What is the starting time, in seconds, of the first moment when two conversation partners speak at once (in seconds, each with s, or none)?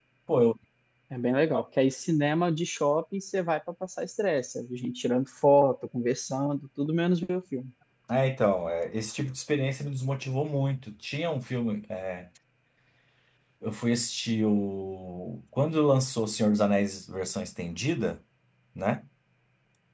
none